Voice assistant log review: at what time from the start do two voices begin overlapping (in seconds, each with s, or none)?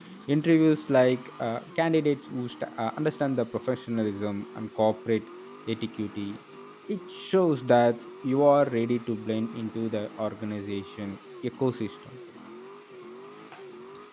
none